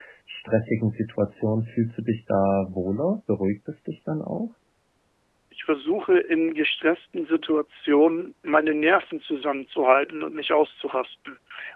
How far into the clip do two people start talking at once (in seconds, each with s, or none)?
none